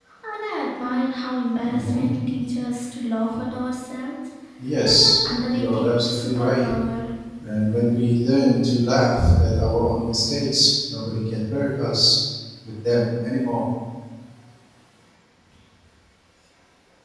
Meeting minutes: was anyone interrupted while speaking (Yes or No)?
Yes